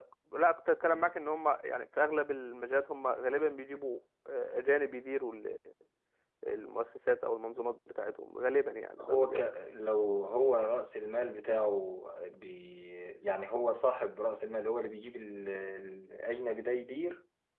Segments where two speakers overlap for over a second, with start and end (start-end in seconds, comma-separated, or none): none